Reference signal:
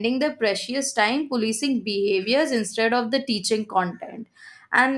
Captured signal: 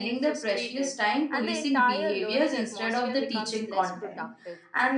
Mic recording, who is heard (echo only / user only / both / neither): both